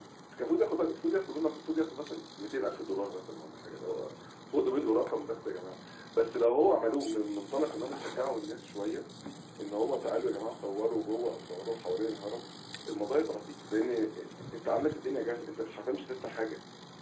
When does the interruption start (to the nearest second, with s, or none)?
none